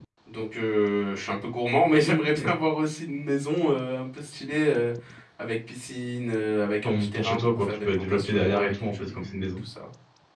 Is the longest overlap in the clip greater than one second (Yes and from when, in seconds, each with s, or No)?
Yes, from 6.8 s